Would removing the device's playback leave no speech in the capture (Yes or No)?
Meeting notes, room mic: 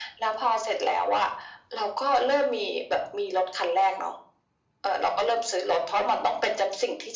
Yes